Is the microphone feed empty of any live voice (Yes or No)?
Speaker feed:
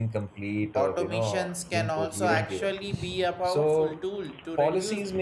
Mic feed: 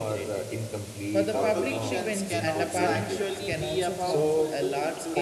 No